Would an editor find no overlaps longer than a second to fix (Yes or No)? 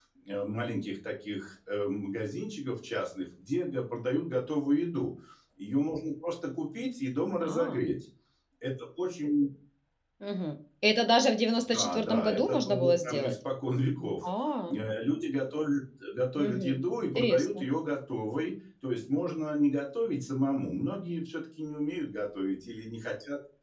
No